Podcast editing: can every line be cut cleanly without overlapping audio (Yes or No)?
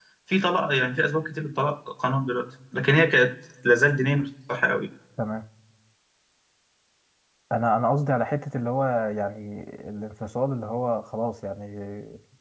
Yes